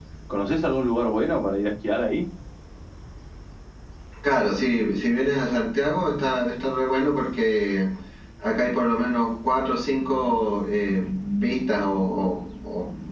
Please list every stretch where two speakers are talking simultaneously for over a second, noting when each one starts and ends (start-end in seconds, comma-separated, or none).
none